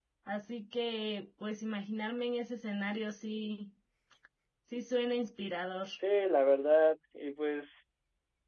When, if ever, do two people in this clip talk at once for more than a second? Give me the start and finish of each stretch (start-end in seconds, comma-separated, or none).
none